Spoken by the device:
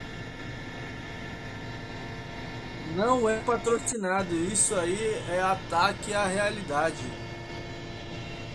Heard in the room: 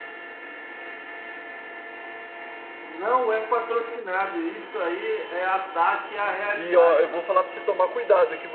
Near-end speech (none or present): present